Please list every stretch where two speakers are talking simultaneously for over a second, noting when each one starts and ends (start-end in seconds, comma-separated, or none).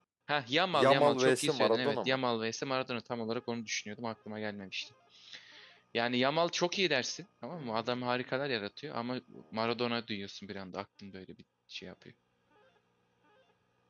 0.7-2.2